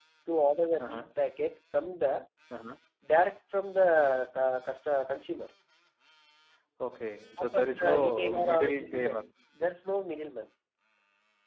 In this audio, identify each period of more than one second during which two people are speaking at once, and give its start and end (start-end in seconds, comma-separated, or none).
7.4-9.2